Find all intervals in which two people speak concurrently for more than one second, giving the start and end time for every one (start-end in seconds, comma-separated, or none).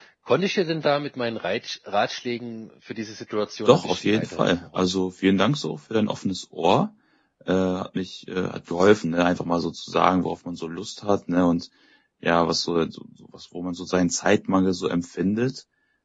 3.7-5.0